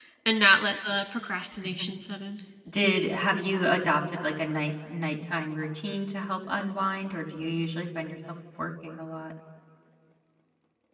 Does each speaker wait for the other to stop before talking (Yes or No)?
Yes